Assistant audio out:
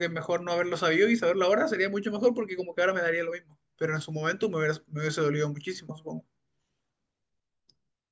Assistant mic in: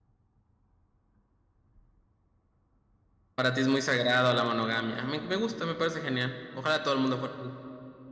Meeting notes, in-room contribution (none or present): present